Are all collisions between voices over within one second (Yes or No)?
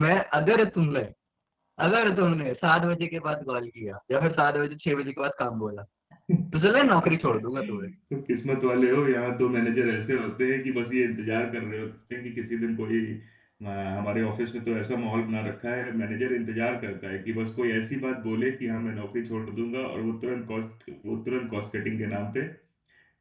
No